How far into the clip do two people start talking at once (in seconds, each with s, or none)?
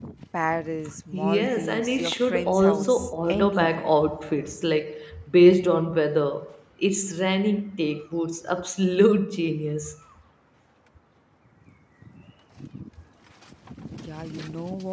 1.1 s